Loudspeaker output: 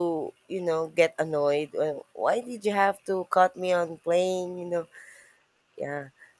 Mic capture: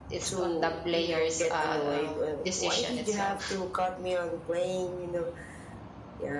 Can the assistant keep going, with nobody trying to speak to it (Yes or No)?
No